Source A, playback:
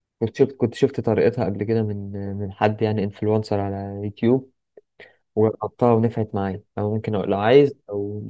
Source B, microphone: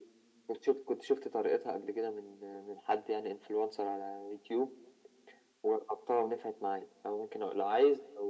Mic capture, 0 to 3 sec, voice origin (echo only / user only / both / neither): echo only